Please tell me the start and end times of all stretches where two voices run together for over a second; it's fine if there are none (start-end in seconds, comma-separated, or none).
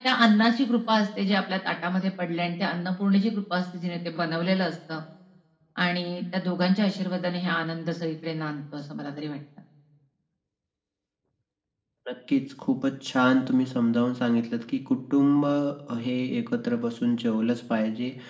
none